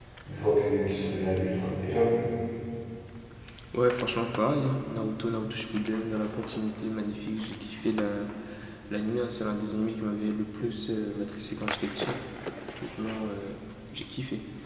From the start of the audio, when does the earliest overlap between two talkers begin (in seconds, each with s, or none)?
none